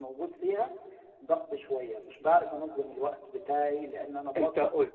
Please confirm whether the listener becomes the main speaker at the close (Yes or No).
Yes